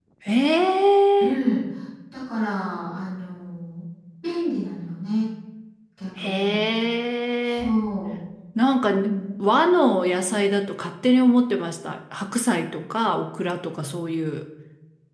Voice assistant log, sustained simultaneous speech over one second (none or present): none